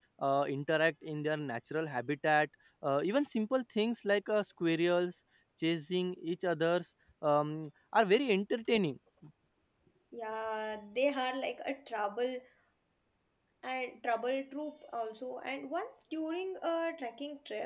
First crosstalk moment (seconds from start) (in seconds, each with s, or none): none